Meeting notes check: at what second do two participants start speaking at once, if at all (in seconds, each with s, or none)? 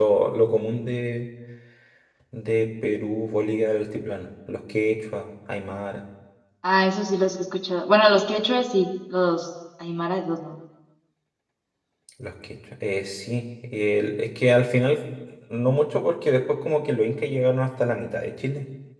none